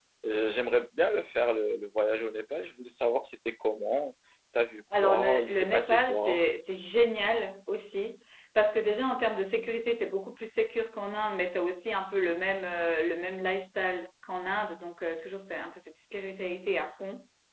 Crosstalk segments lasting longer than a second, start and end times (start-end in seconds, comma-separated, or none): 5.0-6.4